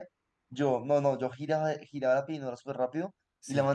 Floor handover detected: No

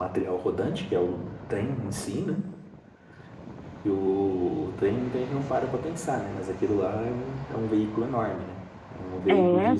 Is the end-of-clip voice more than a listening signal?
No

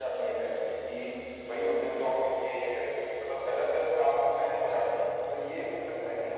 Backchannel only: Yes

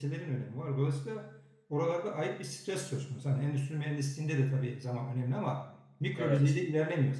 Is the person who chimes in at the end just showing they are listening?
Yes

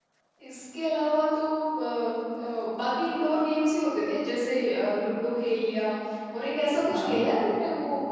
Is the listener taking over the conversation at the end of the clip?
No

